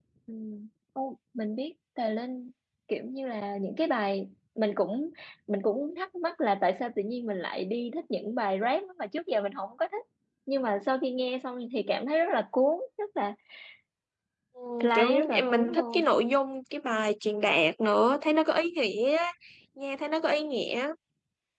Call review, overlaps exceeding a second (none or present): present